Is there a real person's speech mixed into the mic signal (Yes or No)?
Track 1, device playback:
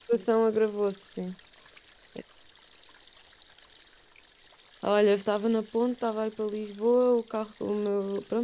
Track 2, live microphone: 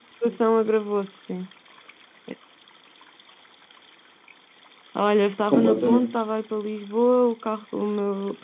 Yes